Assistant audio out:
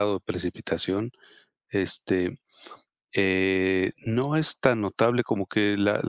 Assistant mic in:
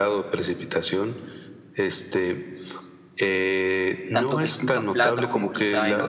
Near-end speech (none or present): present